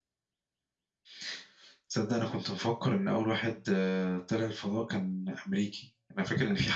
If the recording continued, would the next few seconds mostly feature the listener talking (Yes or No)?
No